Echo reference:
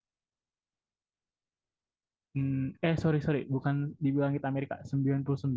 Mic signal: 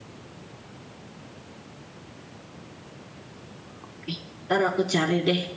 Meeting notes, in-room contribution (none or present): present